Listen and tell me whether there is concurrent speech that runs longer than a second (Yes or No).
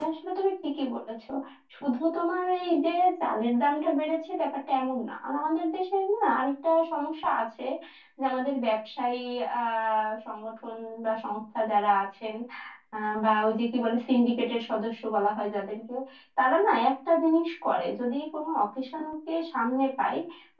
No